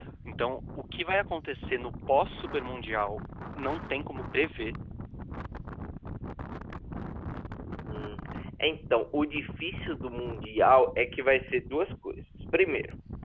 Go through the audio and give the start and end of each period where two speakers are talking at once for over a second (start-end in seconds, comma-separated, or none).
none